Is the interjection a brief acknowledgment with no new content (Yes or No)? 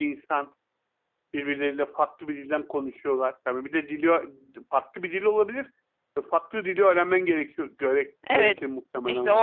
No